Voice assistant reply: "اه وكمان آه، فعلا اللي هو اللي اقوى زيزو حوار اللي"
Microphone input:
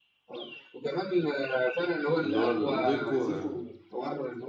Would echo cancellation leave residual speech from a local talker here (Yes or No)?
Yes